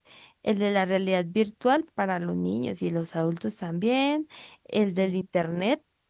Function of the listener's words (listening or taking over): listening